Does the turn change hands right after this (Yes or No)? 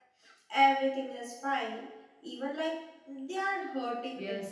Yes